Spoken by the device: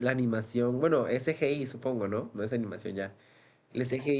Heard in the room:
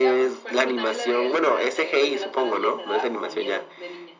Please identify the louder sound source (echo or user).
echo